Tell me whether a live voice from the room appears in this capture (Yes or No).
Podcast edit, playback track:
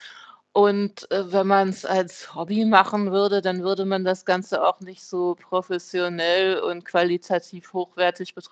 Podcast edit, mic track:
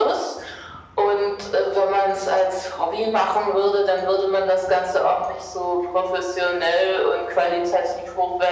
No